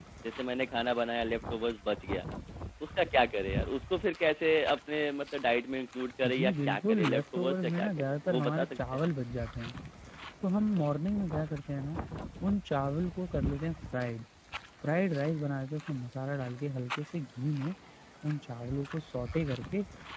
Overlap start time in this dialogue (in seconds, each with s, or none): 6.2 s